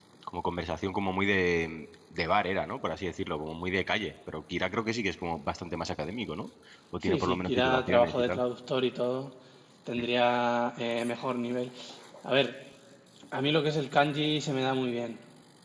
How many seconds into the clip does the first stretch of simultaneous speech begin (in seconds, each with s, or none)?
7.0 s